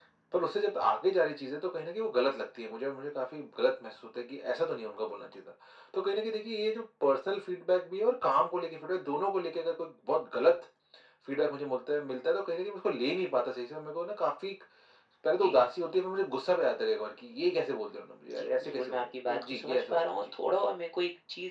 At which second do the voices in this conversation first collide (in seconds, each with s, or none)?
18.3 s